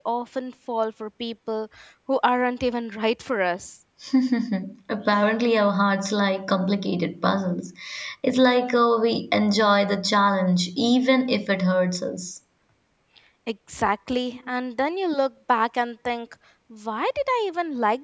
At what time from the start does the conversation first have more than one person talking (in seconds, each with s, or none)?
none